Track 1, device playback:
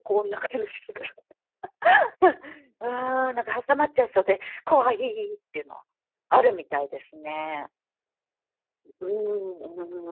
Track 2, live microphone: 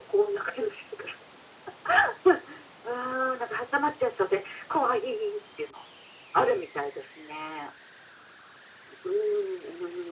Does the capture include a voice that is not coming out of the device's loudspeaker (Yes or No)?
No